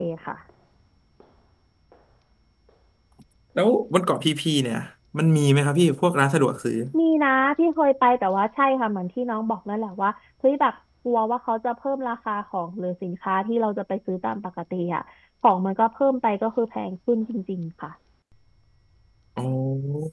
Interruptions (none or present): none